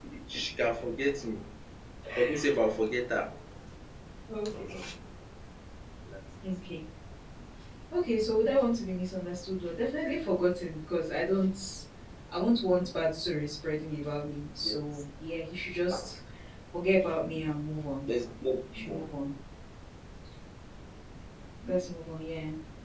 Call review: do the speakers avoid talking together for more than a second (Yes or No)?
Yes